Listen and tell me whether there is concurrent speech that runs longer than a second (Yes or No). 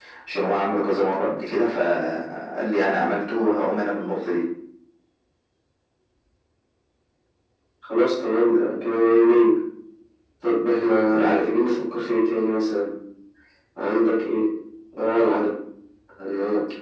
No